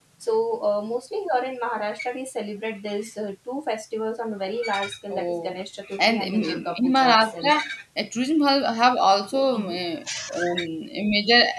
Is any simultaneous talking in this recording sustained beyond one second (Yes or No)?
Yes